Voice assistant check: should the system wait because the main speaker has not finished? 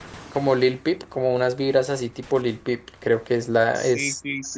No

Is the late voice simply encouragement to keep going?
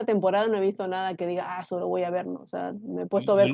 No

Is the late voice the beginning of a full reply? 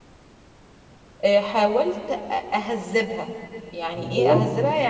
No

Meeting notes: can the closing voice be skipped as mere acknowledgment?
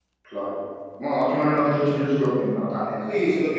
No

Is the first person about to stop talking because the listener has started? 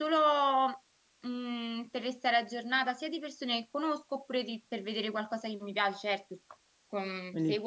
No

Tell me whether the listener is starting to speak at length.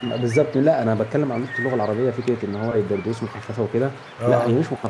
No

